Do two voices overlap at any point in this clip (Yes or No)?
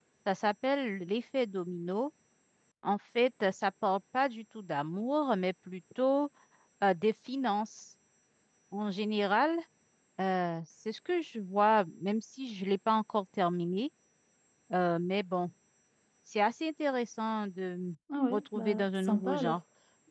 Yes